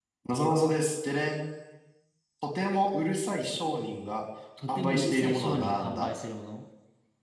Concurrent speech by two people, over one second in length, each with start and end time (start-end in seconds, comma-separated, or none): 4.7-6.1